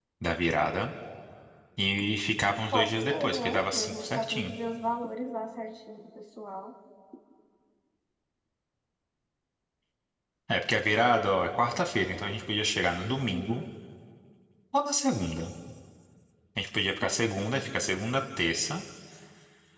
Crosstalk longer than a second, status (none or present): present